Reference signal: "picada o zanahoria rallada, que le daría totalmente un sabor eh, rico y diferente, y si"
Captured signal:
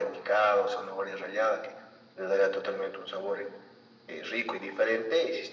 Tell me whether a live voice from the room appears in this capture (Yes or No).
No